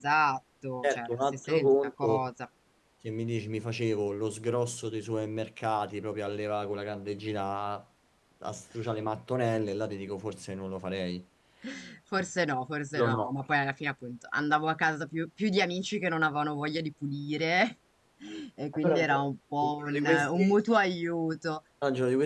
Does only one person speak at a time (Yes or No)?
No